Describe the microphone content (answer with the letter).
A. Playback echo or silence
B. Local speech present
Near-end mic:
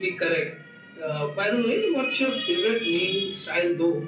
A